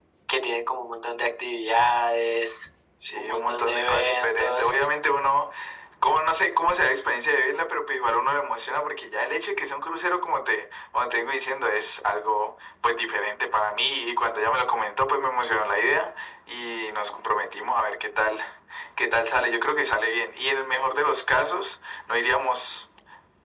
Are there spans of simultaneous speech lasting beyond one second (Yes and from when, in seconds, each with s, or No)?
Yes, from 3.2 s